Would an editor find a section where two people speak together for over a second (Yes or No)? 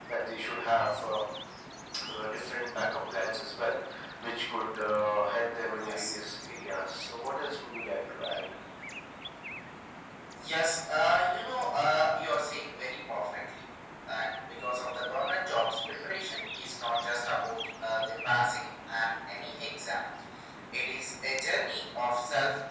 No